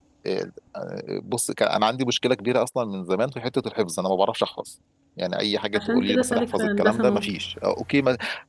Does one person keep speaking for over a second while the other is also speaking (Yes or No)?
Yes